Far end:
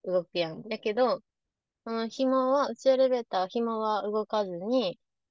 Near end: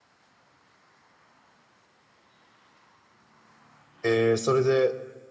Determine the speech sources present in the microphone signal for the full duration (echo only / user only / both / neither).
user only